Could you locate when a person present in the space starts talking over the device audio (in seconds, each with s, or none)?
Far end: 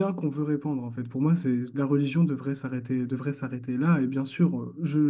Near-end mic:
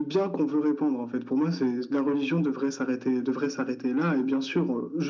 none